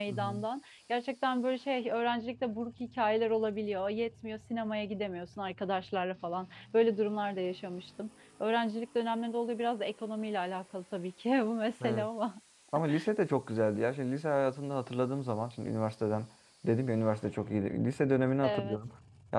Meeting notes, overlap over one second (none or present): none